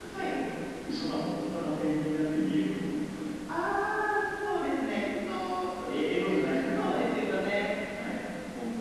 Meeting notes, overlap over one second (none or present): none